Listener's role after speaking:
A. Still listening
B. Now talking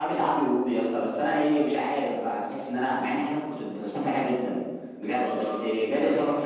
A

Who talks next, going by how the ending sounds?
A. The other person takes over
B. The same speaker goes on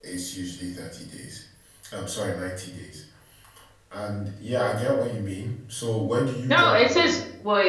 A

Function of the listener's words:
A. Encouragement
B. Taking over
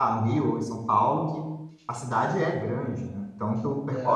B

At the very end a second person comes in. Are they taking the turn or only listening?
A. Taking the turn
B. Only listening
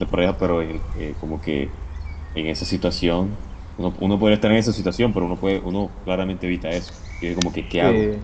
B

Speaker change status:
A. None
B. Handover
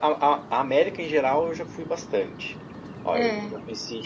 A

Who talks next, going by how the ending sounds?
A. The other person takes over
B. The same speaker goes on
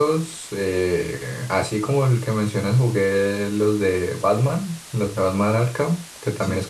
B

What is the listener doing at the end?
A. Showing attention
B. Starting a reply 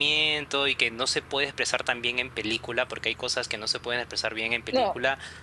A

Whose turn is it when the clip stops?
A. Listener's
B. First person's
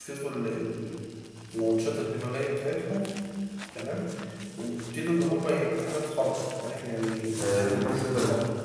A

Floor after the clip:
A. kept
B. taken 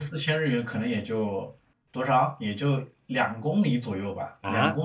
B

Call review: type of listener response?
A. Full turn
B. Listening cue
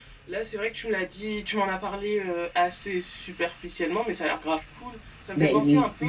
A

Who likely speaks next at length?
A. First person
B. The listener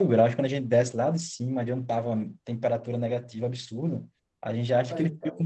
A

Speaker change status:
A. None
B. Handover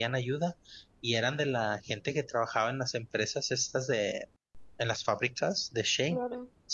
A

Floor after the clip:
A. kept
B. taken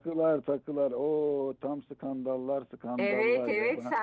B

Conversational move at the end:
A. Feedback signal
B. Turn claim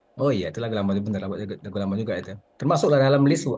A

